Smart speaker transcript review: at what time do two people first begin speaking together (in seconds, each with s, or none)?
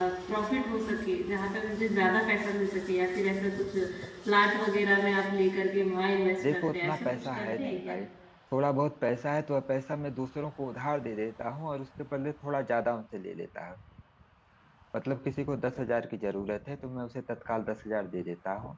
6.4 s